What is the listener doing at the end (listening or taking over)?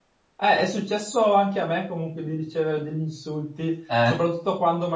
listening